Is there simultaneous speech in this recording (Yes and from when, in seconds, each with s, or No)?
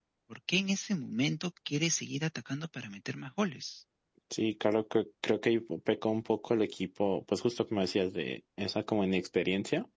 No